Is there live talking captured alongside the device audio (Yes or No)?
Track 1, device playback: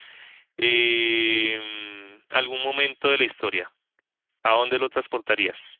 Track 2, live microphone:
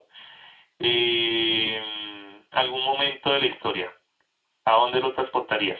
No